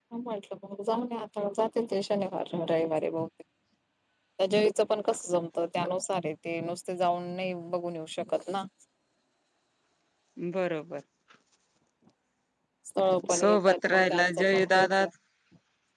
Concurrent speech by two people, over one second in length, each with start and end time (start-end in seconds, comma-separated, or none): 13.4-15.0